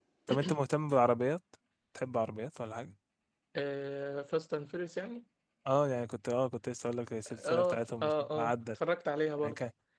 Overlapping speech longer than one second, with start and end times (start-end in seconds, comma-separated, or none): 7.3-8.8